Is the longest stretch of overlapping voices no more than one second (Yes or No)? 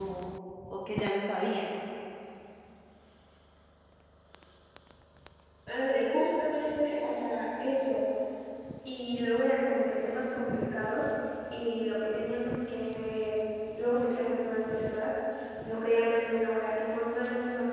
Yes